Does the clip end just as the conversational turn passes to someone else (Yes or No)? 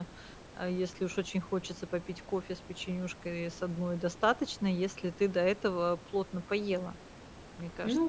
Yes